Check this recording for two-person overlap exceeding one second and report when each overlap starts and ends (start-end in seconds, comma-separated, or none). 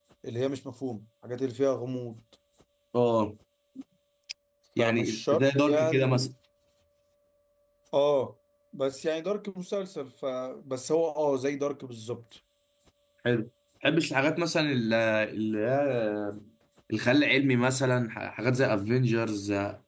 4.8-6.3